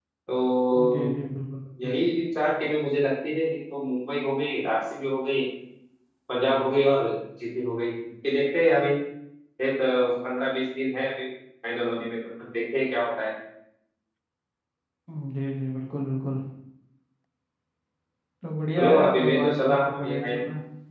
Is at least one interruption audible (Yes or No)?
Yes